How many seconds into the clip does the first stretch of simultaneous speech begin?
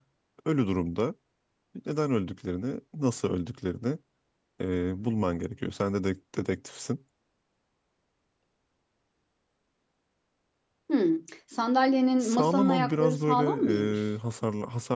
12.2 s

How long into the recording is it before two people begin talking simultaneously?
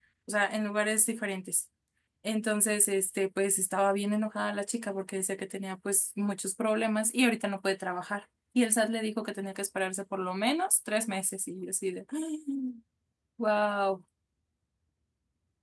none

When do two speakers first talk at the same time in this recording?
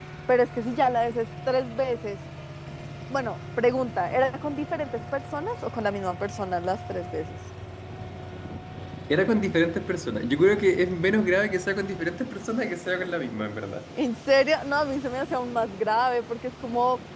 none

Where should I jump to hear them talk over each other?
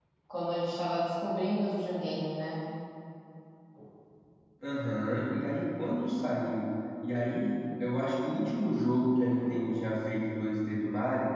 none

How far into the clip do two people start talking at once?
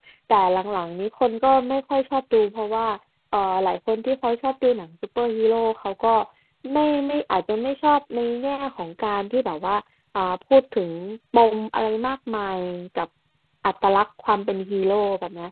none

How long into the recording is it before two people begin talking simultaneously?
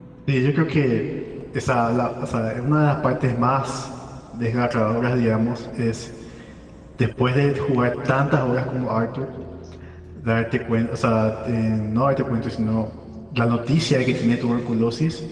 none

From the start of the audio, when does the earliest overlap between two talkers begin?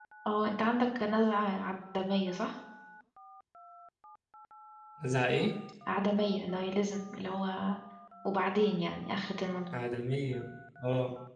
none

